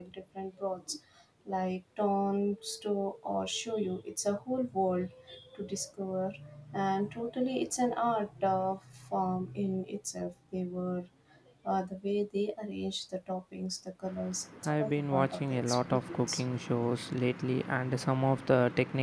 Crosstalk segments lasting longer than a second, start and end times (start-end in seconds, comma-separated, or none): 14.6-16.4